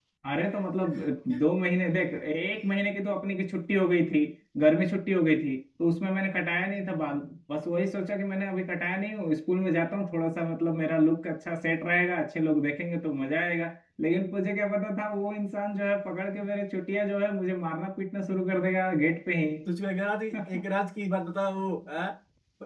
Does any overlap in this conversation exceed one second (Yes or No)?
No